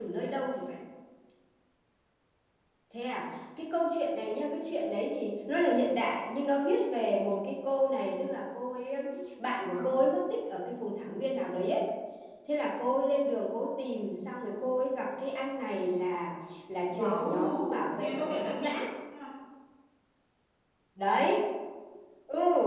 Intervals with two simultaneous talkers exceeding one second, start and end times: 16.9-18.7

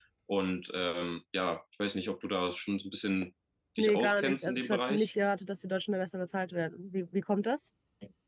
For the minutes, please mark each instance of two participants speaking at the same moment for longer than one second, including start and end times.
3.8-5.1

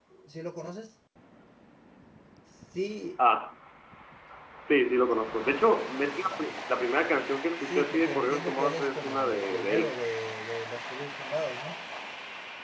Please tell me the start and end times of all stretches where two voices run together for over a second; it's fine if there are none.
7.6-10.0

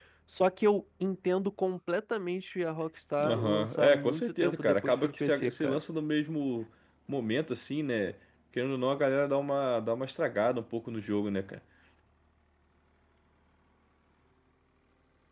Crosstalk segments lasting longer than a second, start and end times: 3.2-5.8

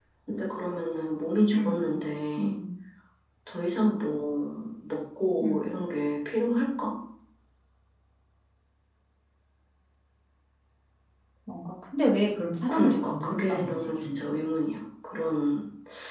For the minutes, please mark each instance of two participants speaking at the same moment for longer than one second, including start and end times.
12.7-14.3

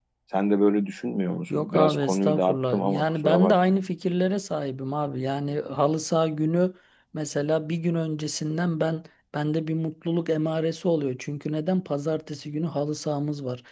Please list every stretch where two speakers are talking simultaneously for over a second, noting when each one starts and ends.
1.5-3.7

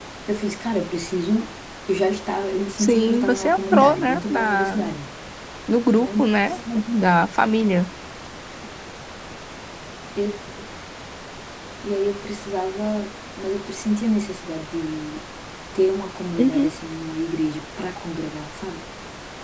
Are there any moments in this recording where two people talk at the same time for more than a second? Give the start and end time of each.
2.8-4.8

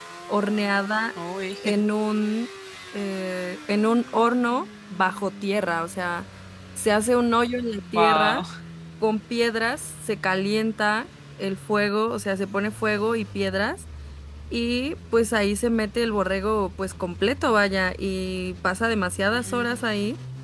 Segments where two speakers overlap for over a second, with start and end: none

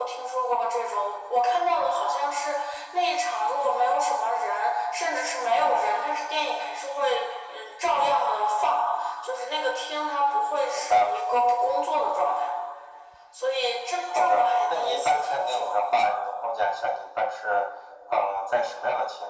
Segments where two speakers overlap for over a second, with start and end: 14.1-15.7

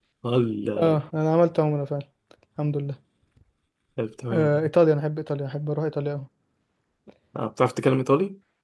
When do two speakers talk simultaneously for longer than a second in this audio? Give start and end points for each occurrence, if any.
none

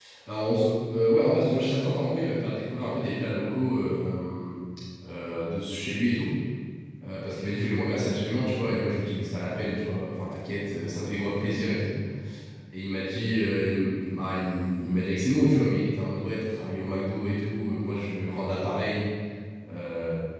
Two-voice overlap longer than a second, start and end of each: none

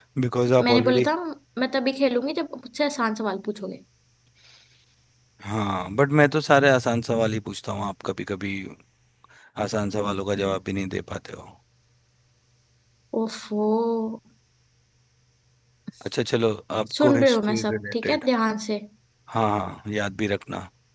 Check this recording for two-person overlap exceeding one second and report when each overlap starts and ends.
17.0-18.2

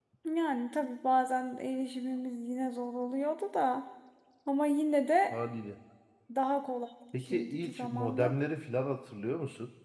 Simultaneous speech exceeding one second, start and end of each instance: 7.1-8.3

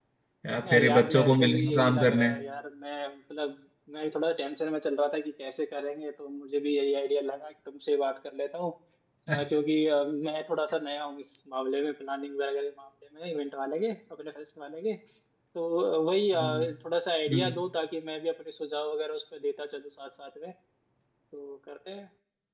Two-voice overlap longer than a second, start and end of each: 0.8-2.4

